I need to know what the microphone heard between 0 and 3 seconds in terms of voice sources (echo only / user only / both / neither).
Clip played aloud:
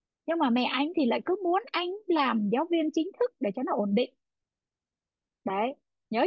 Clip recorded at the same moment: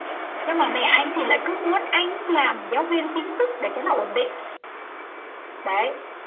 echo only